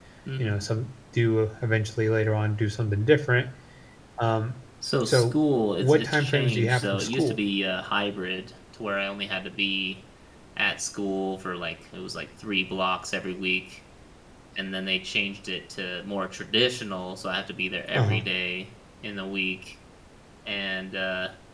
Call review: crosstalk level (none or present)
present